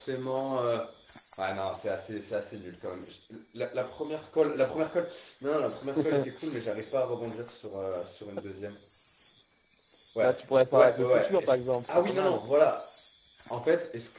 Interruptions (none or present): present